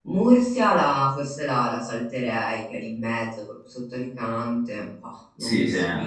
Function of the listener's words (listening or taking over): taking over